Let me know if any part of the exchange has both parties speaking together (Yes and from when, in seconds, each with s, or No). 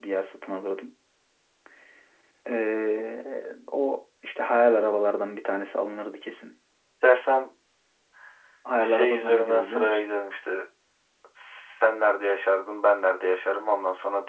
Yes, from 8.8 s